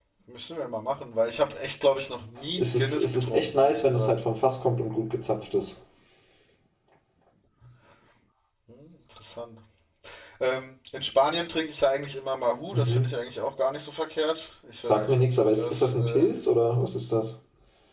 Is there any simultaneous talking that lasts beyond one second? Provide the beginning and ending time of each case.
2.6-4.1, 14.8-16.3

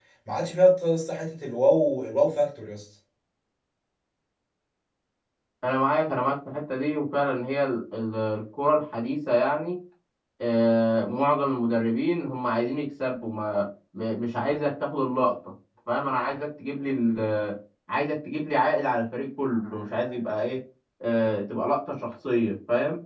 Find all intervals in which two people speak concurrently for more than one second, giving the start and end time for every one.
none

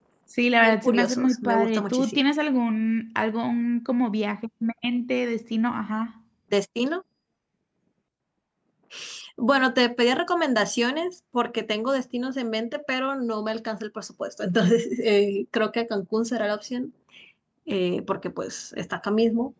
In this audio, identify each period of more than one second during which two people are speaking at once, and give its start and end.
0.6-2.2

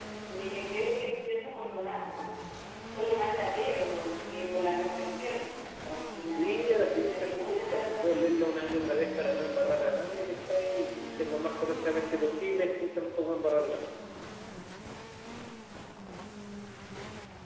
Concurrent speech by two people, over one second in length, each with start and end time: 6.3-8.1

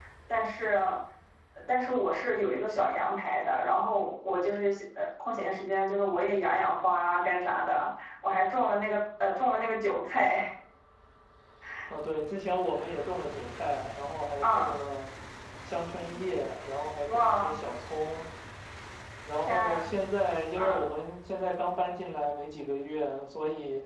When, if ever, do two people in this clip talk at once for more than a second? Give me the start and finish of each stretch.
none

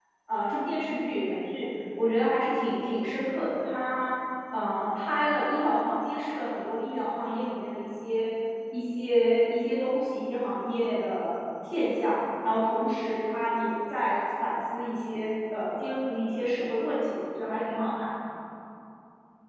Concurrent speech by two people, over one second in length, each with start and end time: none

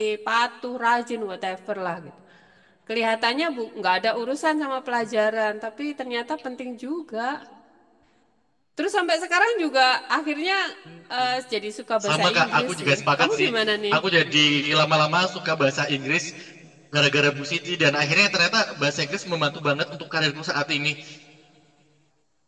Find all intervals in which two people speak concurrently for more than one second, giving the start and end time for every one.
12.0-13.5

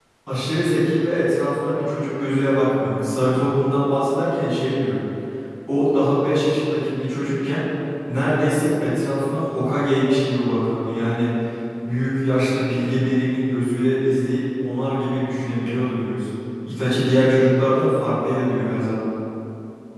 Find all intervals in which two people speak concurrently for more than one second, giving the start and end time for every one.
none

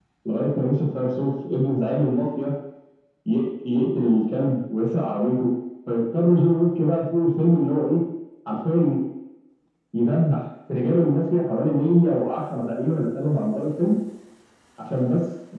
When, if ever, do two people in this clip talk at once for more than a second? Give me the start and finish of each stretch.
none

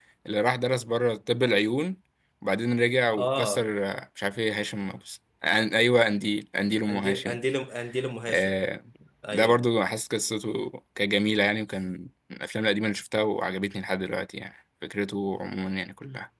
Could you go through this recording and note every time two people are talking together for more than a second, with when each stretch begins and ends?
none

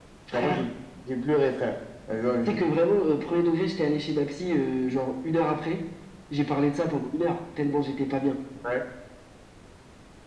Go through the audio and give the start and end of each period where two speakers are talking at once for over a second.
none

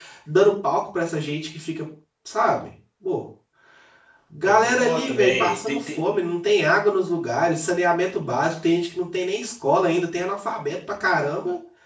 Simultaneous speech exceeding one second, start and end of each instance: 4.4-6.0

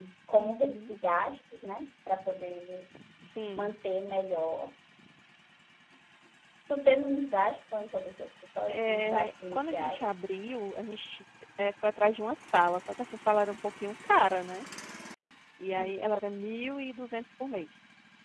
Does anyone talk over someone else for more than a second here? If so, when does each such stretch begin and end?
8.7-10.2

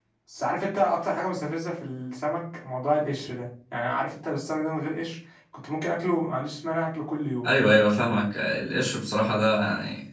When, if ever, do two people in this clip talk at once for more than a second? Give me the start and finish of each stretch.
none

